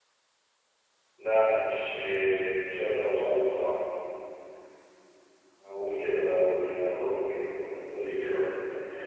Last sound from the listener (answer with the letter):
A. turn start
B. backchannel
A